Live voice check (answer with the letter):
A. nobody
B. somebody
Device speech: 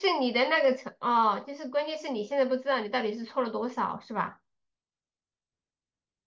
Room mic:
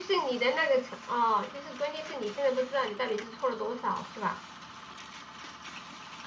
A